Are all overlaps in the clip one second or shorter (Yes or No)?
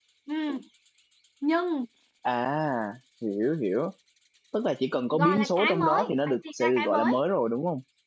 No